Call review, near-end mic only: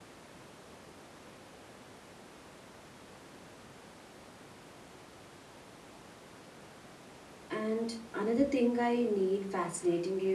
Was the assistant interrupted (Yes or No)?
Yes